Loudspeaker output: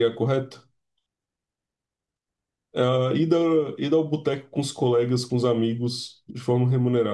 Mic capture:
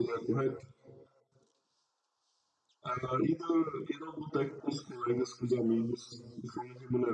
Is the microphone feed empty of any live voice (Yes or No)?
Yes